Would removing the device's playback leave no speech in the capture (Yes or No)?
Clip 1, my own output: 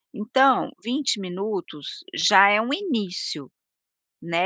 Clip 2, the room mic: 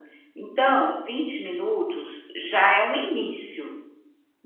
Yes